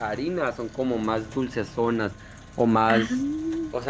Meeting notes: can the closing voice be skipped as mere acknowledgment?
Yes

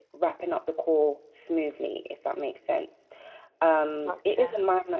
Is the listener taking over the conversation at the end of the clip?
No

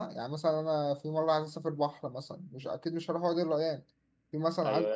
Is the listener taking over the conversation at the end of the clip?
Yes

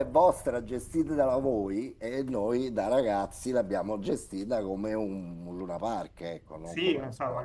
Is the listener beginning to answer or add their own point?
Yes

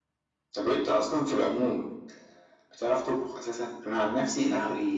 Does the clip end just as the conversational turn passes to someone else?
No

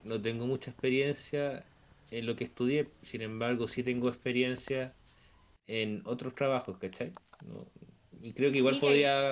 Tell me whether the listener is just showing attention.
Yes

